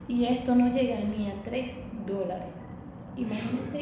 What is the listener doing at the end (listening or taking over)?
listening